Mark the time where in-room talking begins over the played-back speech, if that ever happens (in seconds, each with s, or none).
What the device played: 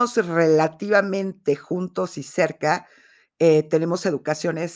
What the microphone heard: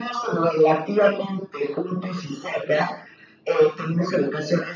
none